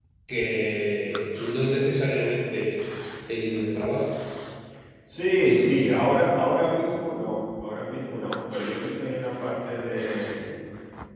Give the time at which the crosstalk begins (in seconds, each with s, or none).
none